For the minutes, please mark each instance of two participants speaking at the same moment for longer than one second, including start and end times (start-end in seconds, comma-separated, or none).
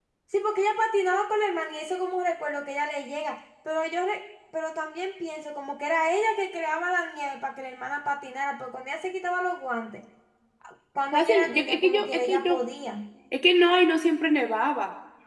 11.1-12.6